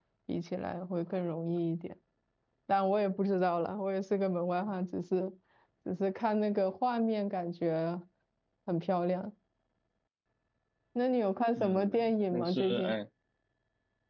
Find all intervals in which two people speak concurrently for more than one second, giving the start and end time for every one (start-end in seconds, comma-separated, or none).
11.6-13.0